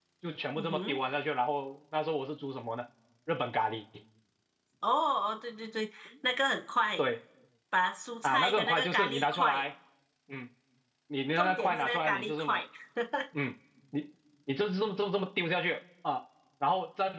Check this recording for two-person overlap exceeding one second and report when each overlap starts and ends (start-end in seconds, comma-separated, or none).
8.2-9.6, 11.4-12.6